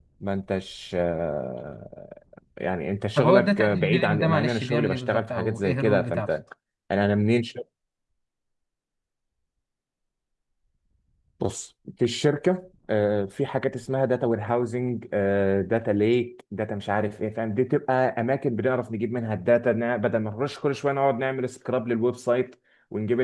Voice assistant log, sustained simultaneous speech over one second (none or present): present